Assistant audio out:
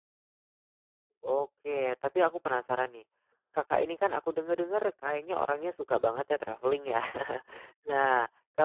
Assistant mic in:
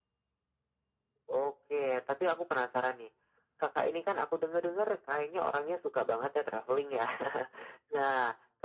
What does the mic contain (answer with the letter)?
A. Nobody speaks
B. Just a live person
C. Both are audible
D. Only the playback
D